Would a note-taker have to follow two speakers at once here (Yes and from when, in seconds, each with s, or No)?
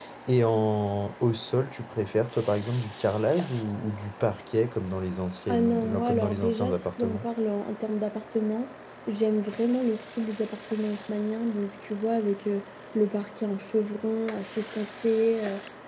Yes, from 5.5 s